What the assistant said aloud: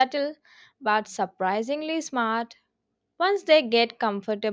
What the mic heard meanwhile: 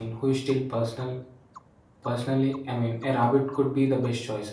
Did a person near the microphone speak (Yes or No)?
Yes